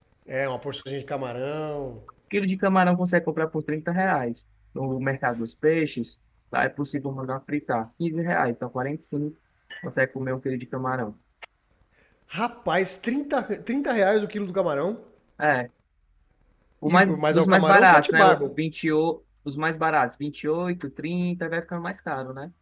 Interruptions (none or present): present